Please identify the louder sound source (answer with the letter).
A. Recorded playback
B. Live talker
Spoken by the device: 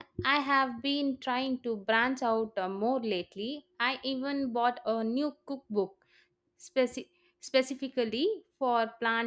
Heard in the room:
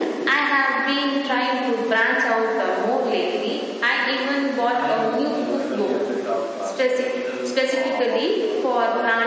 A